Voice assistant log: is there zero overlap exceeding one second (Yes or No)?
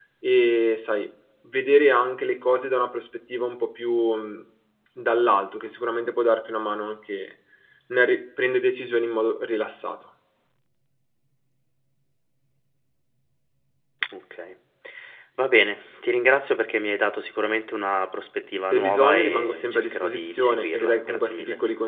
No